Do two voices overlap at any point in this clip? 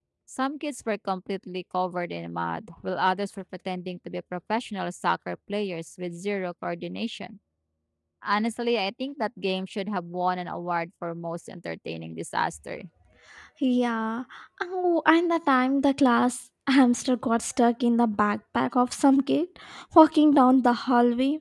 No

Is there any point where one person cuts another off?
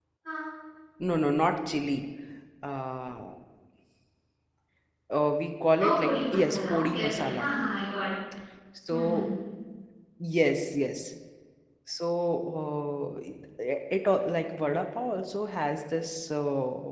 Yes, from 5.8 s

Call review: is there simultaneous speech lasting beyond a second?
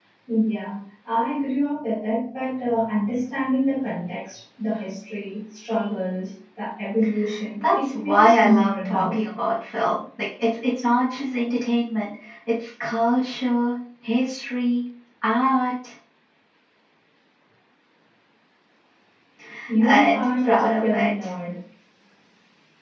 Yes, from 7.8 s

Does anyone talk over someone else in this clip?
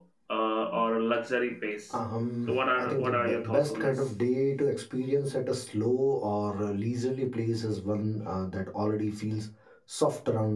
Yes, from 2.5 s

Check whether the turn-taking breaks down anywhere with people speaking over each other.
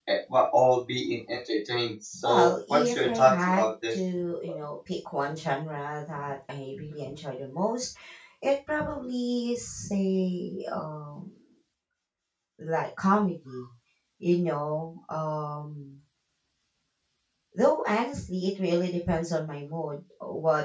Yes, from 2.1 s

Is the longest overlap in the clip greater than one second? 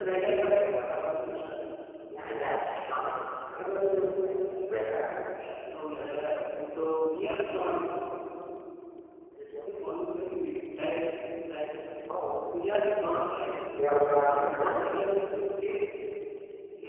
No

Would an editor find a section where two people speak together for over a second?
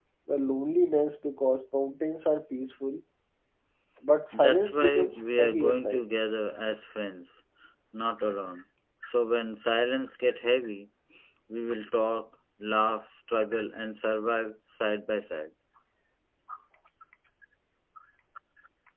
Yes, from 4.4 s

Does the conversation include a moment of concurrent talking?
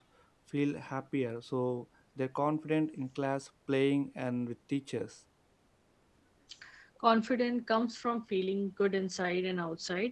No

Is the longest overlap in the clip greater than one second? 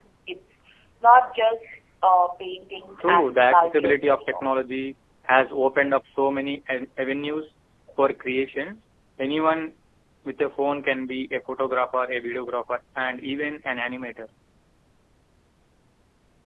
Yes, from 3.0 s

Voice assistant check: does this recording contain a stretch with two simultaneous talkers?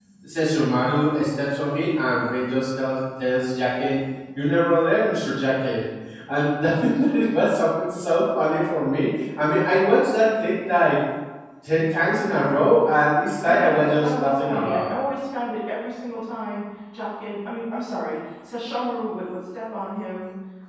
Yes, from 13.4 s

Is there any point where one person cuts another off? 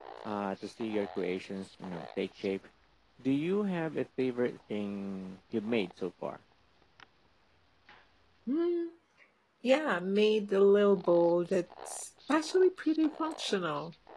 No

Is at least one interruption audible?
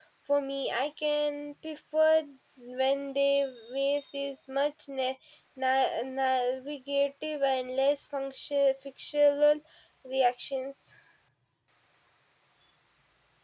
No

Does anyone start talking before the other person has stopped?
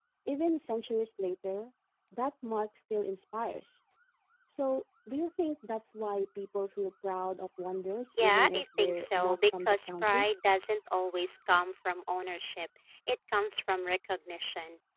Yes, from 8.1 s

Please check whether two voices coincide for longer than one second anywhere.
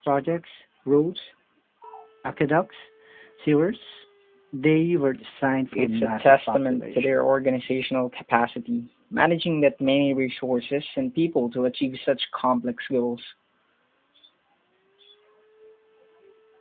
Yes, from 5.7 s

